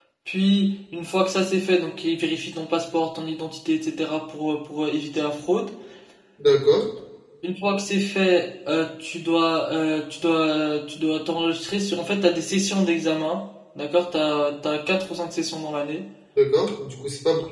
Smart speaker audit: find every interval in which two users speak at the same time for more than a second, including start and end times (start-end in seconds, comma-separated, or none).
none